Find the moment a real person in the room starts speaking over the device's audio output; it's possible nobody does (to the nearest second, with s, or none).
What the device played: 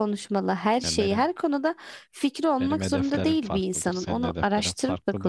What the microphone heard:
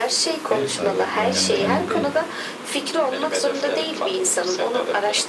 0 s